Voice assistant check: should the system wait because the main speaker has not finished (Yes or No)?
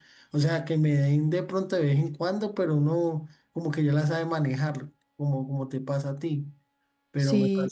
Yes